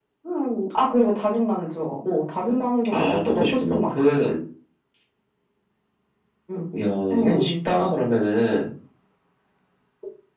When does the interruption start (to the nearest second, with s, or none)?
3 s